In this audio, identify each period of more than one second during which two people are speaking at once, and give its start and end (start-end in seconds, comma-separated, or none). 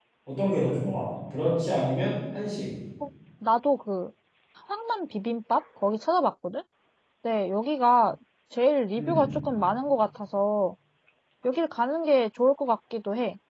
none